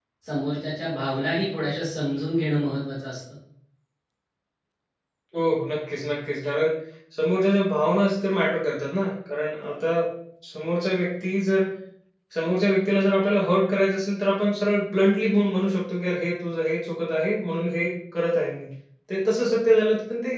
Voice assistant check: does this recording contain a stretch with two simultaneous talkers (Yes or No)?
No